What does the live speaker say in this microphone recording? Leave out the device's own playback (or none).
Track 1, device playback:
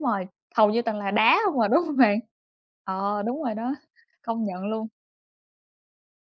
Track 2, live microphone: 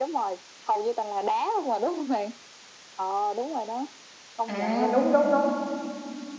à, đúng, đúng, đúng.